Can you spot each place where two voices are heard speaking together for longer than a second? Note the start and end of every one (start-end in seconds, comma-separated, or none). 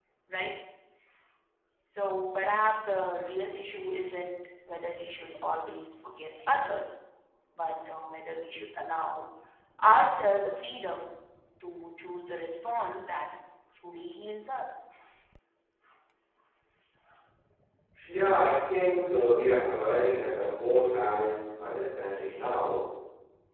none